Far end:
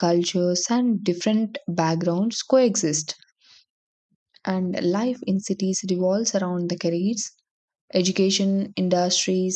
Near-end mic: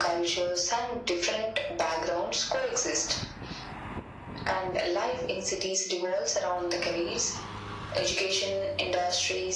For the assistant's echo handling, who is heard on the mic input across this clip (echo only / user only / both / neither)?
echo only